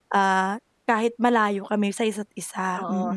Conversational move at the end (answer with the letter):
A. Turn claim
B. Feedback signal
A